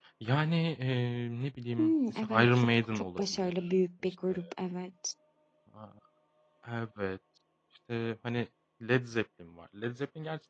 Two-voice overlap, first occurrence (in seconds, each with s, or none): 1.8 s